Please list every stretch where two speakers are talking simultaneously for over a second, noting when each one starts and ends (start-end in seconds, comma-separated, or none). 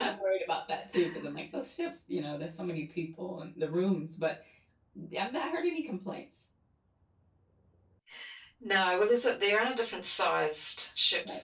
none